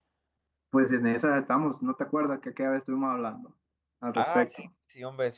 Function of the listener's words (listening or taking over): taking over